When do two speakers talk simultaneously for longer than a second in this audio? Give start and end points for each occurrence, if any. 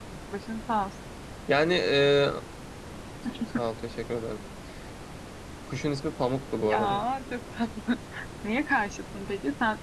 none

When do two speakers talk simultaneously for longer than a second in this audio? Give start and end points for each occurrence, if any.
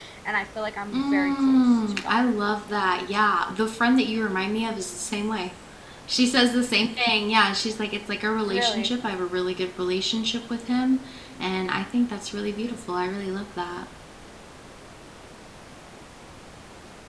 0.9-2.2

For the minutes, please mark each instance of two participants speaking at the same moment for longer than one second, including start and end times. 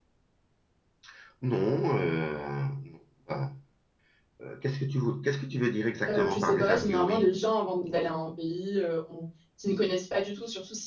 6.1-7.3

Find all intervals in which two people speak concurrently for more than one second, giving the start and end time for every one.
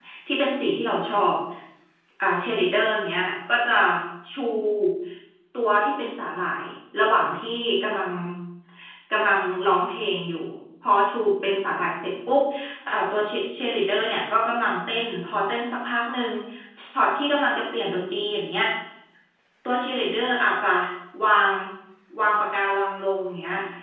none

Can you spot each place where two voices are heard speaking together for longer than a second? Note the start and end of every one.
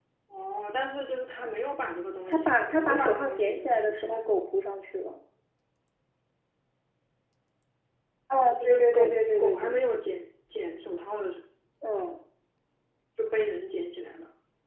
2.3-4.2, 8.6-9.8

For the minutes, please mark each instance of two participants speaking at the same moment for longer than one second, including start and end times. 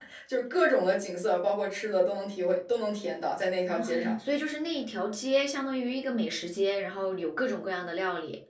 none

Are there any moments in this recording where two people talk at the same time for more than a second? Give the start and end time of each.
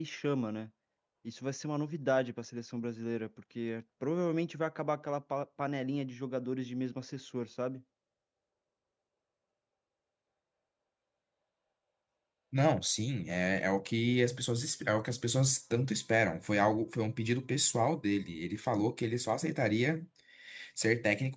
none

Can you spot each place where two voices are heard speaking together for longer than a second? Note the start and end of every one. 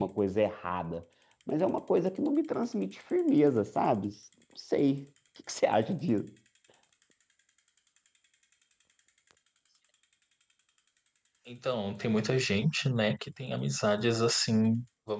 none

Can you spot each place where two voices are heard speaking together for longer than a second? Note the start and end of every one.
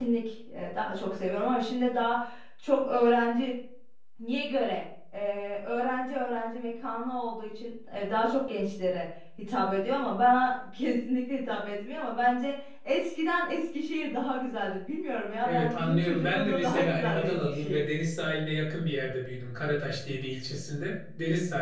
15.4-17.8

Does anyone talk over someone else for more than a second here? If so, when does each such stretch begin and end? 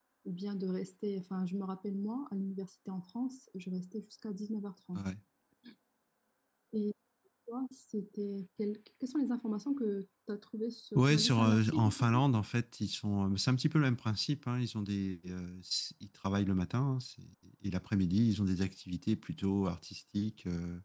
10.9-12.2

